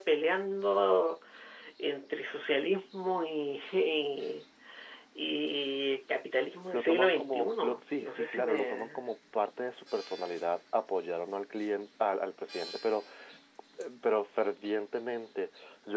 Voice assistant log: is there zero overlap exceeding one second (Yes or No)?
No